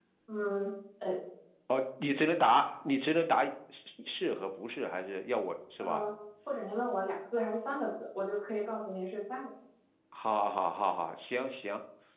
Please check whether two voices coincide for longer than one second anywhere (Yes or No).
No